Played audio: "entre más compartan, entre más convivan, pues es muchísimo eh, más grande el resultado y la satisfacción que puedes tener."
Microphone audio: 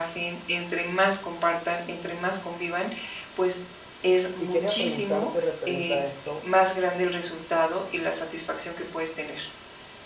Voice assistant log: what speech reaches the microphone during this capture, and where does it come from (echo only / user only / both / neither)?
both